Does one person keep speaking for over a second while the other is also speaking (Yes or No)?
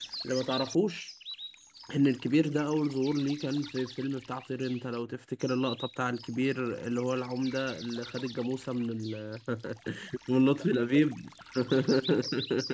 No